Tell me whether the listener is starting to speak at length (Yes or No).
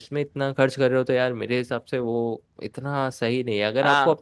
No